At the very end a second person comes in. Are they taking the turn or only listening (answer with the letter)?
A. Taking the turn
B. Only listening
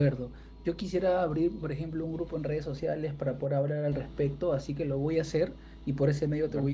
B